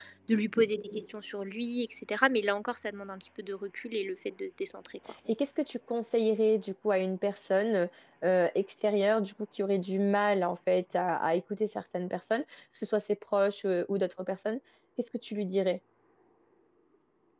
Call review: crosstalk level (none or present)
none